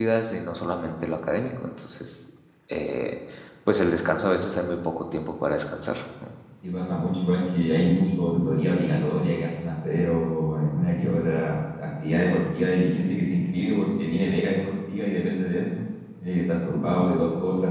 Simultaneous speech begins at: none

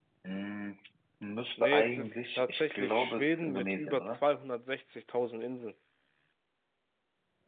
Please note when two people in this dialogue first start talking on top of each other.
1.6 s

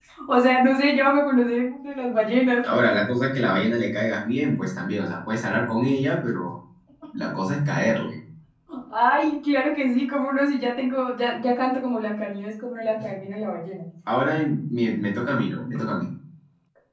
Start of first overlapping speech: none

